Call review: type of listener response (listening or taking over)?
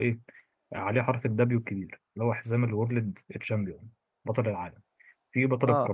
listening